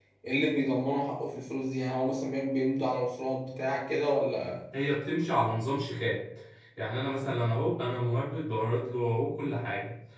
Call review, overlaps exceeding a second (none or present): none